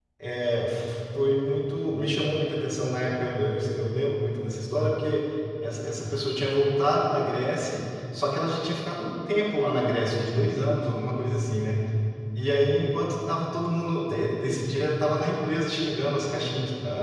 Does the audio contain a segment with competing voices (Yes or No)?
No